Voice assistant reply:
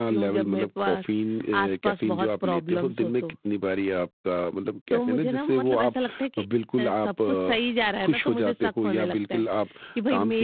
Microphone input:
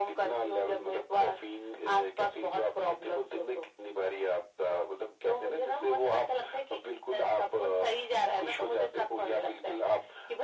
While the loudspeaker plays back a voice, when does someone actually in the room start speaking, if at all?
none

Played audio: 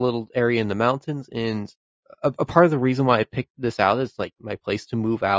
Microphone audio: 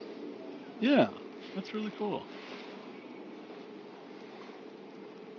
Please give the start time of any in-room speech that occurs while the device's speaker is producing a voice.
0.8 s

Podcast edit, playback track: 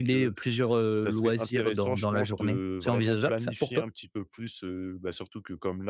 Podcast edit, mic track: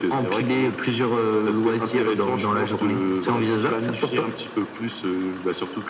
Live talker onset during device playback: none

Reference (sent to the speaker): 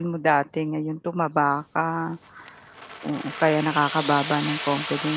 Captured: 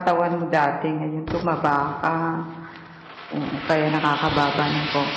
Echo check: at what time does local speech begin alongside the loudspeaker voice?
none

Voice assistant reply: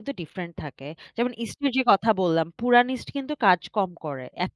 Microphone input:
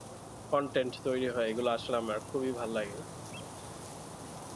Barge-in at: 0.5 s

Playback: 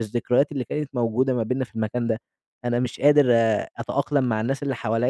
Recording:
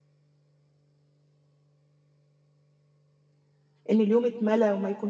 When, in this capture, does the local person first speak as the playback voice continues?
3.9 s

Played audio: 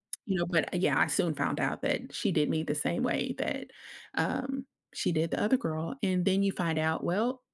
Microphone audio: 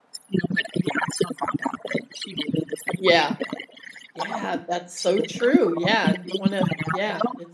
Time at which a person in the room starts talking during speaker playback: 3.0 s

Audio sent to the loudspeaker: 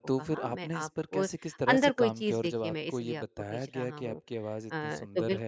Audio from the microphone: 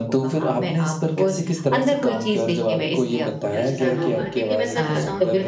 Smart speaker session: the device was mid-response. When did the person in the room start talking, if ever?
3.5 s

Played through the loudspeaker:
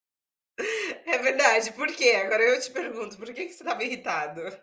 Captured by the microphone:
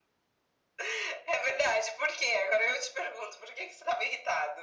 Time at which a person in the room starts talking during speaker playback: none

